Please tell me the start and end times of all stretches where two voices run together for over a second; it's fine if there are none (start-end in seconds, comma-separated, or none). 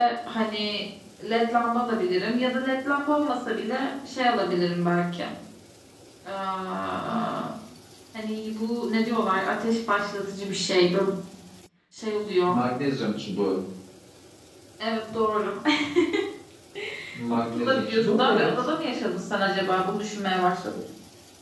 17.4-18.6